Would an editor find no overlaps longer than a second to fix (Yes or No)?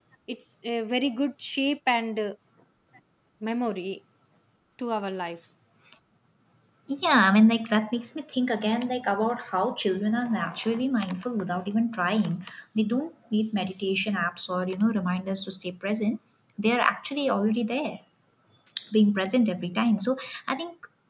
Yes